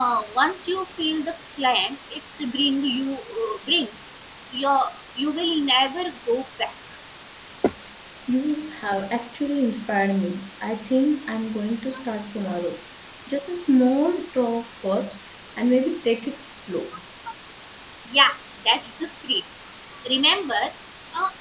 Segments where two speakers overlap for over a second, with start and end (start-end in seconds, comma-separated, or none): none